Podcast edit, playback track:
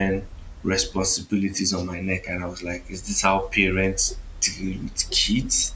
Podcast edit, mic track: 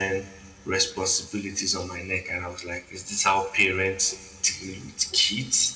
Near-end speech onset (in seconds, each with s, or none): none